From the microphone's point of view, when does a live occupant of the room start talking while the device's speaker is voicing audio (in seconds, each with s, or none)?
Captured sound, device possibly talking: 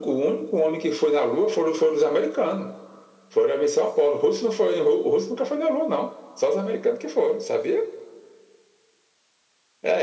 none